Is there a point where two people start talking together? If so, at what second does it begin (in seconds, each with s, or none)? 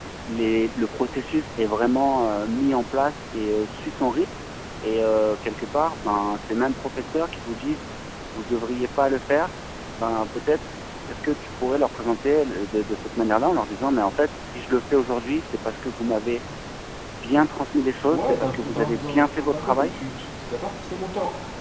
18.1 s